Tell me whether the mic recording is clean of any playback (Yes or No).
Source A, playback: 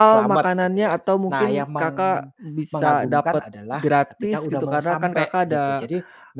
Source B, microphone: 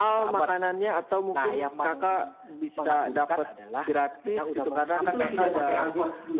No